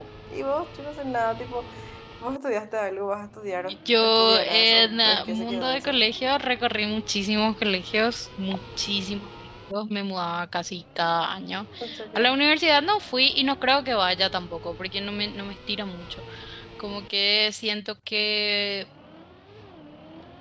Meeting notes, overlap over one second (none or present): present